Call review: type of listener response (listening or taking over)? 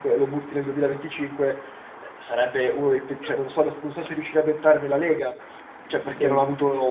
listening